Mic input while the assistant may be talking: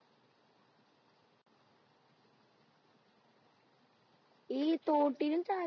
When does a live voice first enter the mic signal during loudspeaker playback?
4.6 s

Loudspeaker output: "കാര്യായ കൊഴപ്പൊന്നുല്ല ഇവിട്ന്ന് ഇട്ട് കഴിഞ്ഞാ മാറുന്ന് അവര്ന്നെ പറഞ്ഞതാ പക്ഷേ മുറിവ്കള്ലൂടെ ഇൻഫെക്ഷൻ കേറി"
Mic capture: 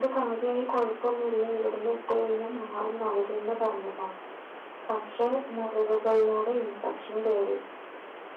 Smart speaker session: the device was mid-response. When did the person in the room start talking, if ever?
none

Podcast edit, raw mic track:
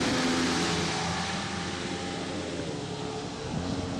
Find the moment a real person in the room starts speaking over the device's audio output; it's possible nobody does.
none

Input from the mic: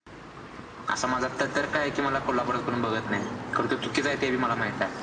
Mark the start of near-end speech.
none

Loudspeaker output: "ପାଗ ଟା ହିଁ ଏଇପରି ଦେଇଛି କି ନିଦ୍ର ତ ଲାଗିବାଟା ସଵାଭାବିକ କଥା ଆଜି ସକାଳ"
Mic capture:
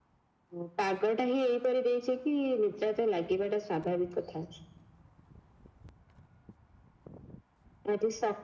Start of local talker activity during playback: none

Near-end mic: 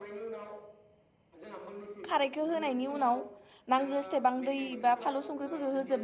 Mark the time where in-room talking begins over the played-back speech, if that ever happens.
2.1 s

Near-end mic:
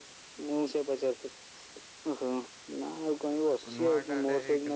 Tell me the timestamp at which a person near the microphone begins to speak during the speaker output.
3.5 s

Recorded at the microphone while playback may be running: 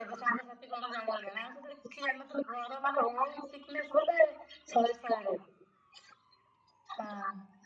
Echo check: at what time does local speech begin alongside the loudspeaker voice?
none

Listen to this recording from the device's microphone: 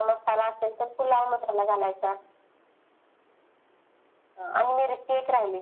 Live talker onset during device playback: none

